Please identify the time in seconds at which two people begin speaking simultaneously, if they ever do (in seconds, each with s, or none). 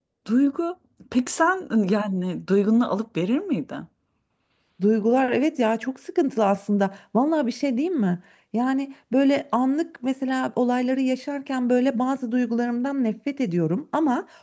none